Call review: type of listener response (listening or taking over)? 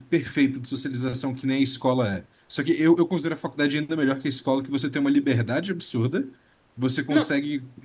listening